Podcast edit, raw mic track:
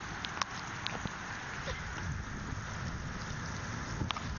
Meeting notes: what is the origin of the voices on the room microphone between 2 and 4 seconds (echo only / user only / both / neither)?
neither